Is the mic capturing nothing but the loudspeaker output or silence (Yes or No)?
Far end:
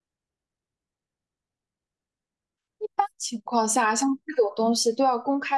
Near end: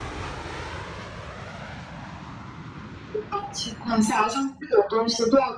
Yes